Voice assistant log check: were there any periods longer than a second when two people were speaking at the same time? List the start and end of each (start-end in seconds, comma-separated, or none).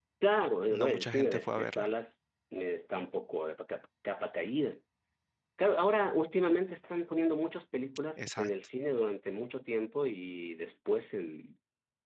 0.7-1.9